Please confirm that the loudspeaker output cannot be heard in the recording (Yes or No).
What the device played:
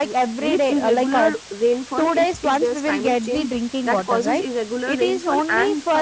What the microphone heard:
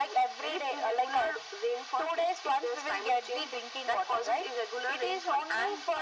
No